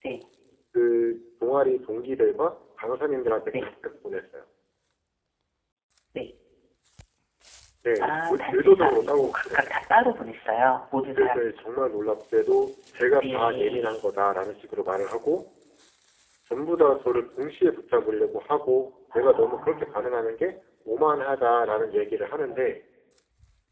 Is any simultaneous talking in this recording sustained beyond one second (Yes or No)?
Yes